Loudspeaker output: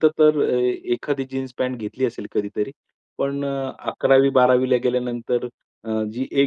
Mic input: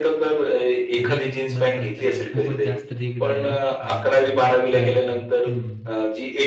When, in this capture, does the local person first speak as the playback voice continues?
1.0 s

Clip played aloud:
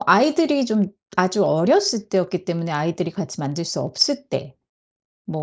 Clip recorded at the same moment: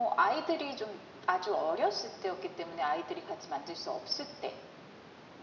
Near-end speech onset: none

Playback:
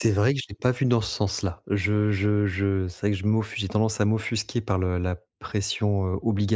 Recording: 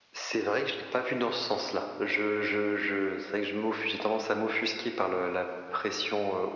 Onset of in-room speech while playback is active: none

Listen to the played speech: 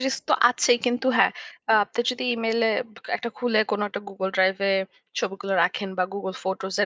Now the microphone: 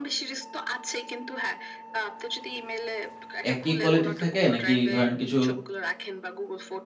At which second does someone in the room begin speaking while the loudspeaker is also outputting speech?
3.5 s

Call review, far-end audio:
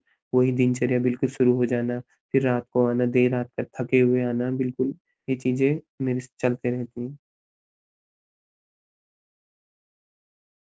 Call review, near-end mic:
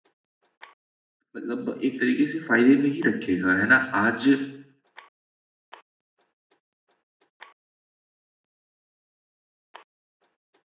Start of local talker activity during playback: 1.4 s

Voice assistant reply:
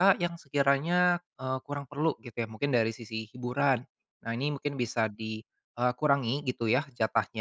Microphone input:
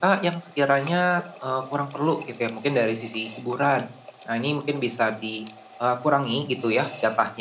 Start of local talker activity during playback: none

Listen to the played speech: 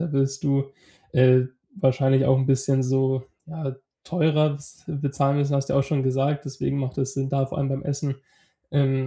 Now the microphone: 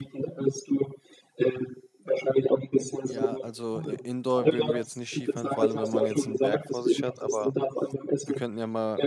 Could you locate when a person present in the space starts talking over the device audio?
3.1 s

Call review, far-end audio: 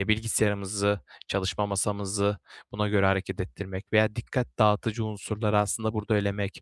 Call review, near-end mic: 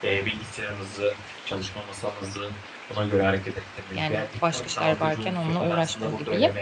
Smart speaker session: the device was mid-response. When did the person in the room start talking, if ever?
3.9 s

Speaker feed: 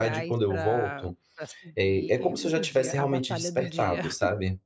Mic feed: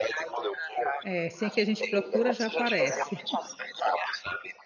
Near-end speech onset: 1.0 s

